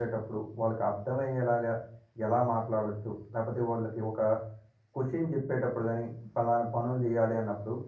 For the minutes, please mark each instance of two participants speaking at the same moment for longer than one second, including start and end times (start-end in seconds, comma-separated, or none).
none